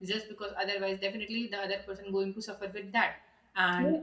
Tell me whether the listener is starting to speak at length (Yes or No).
No